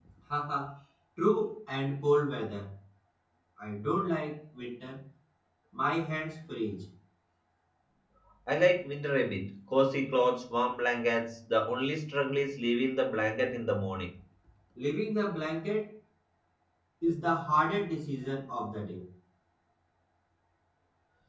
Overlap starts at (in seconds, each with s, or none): none